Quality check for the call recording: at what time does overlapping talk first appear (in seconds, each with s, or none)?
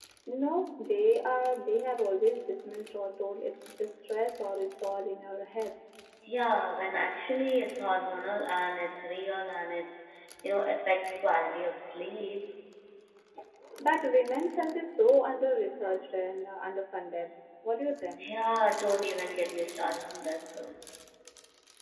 none